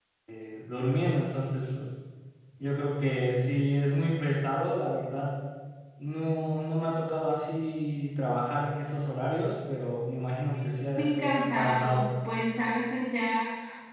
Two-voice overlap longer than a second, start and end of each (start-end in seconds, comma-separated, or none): 10.5-12.1